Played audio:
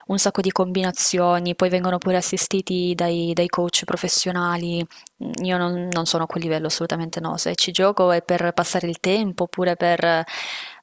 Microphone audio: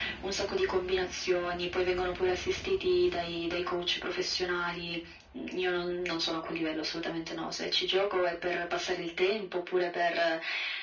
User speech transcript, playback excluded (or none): none